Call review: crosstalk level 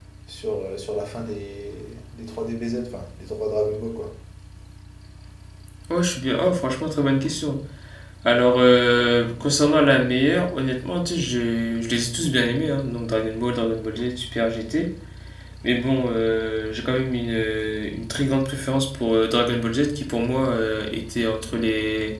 none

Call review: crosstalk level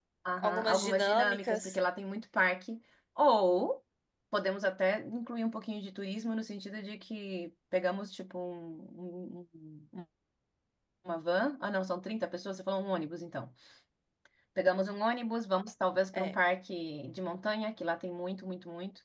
present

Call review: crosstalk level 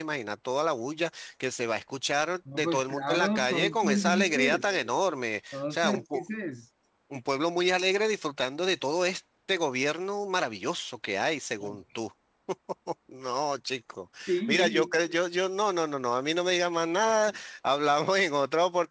present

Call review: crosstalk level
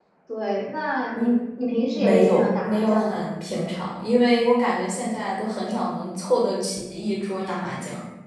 present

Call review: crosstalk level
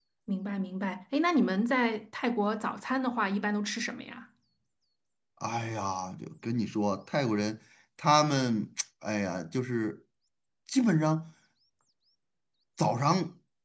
none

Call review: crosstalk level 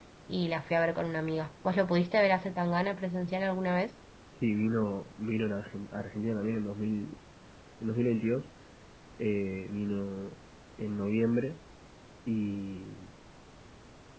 none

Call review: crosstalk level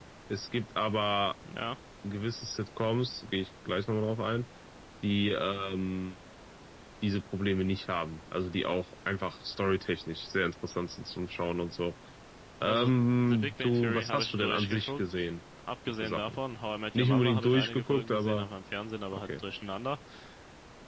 present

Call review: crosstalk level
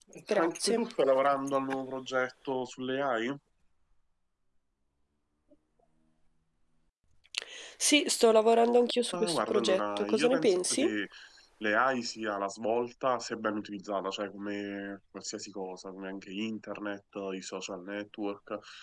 present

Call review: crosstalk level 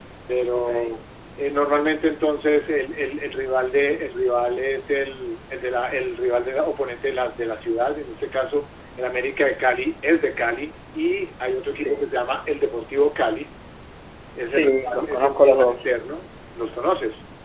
present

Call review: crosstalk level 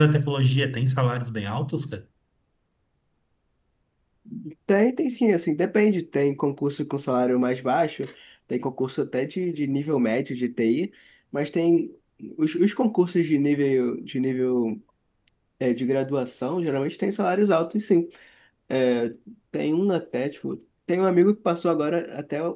none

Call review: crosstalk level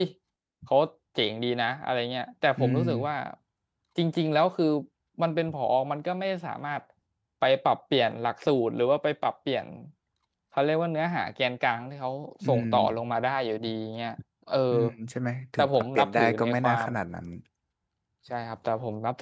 present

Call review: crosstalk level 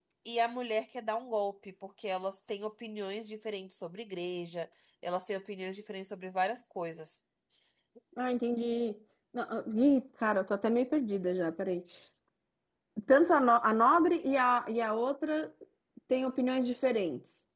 none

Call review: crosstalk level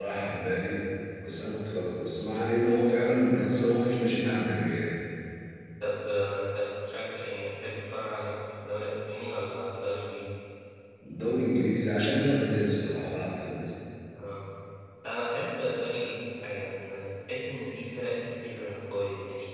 none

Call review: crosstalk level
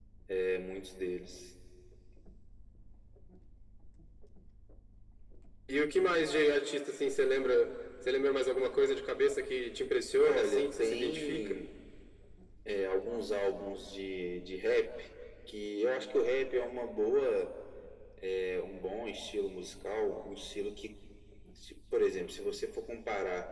present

